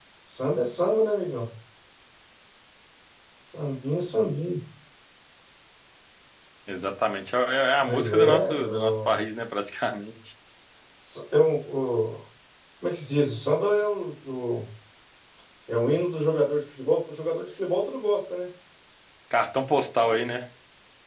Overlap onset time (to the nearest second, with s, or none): 8 s